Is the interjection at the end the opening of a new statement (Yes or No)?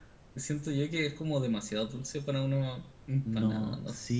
Yes